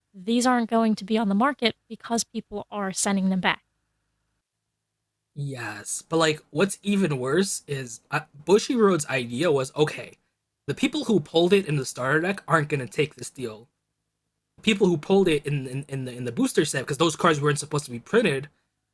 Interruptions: none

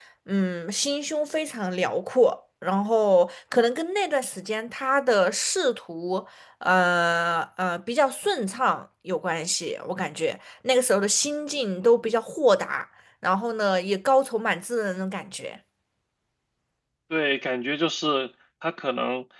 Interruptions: none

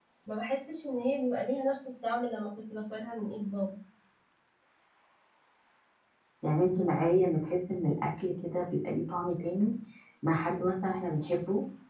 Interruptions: none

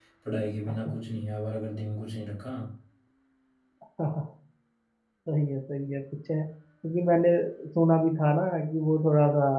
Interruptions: none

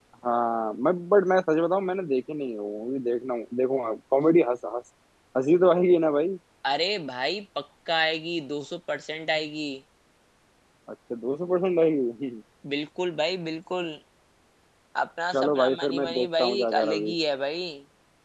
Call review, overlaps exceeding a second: present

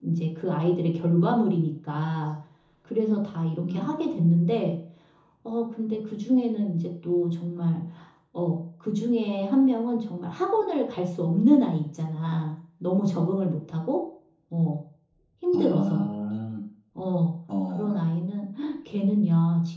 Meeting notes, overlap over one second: none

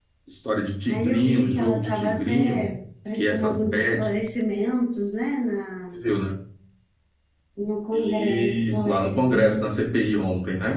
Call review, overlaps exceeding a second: present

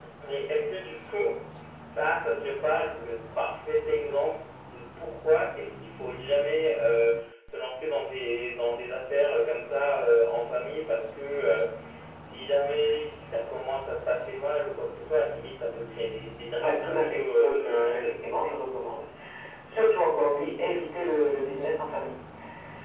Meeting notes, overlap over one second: present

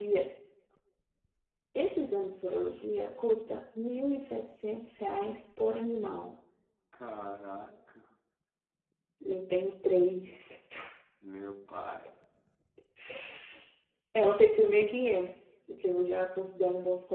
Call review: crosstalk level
none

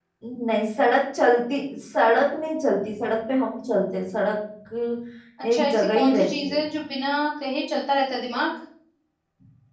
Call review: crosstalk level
present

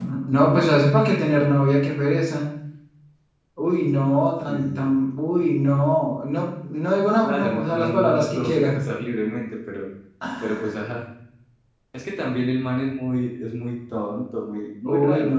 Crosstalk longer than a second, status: present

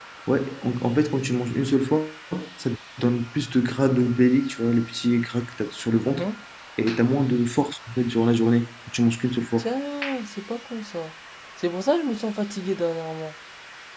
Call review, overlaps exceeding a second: none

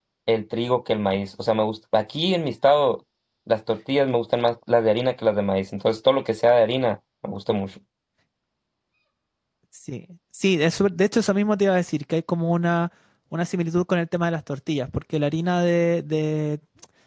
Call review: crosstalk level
none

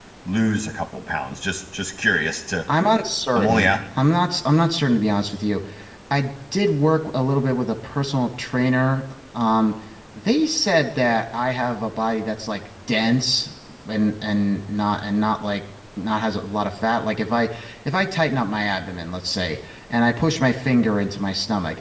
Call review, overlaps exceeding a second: none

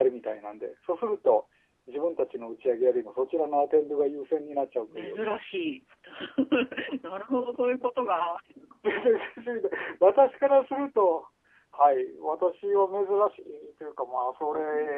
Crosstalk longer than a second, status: none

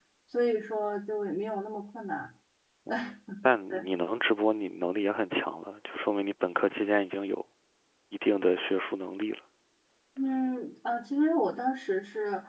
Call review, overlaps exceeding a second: none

